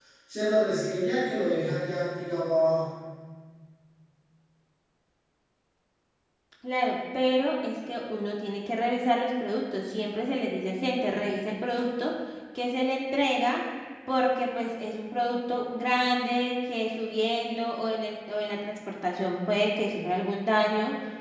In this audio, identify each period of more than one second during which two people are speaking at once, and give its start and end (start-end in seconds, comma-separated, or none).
none